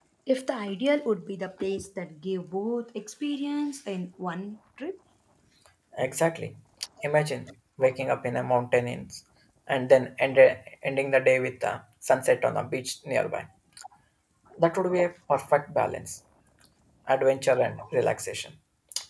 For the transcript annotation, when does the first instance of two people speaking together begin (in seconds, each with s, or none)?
none